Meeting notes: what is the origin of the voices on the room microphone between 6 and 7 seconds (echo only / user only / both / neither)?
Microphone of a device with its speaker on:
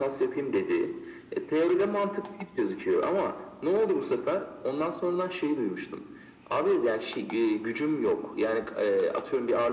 both